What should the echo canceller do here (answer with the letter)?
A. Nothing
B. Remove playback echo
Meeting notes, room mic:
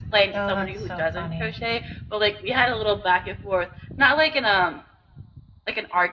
B